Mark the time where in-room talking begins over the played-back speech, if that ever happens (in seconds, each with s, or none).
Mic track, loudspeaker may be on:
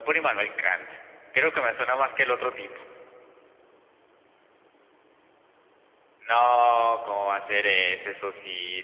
none